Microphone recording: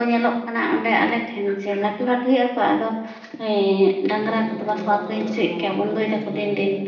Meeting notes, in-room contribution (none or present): present